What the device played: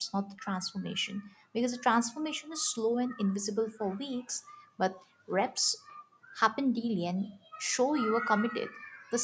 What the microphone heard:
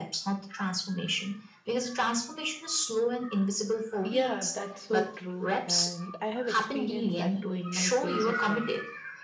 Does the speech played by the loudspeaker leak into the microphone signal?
Yes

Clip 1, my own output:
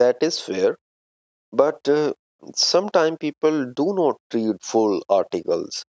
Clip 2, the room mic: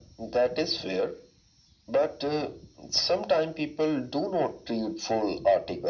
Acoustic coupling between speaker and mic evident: Yes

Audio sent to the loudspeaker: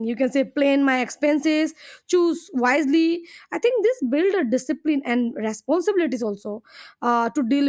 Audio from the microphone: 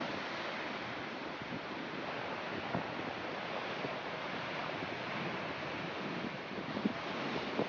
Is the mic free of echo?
Yes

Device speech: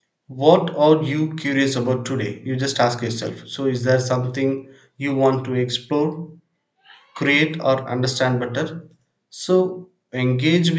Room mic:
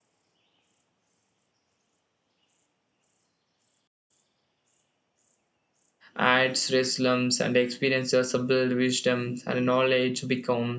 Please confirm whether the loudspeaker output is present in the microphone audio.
No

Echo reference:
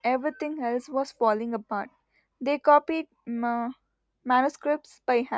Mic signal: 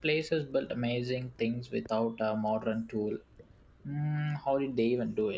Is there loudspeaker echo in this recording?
No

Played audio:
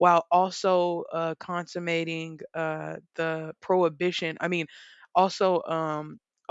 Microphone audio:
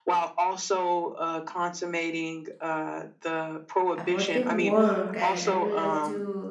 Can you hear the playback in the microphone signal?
Yes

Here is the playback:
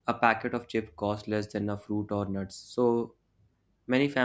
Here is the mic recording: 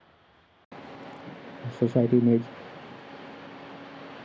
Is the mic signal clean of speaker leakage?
Yes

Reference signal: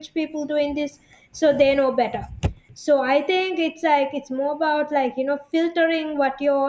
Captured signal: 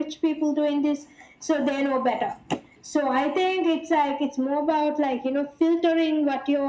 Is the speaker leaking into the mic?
Yes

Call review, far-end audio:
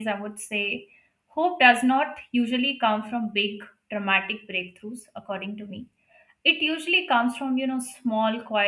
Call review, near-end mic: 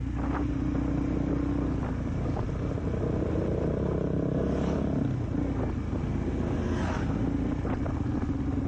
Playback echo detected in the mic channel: No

